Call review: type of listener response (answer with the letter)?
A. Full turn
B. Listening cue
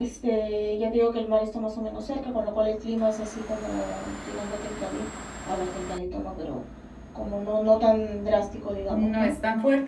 A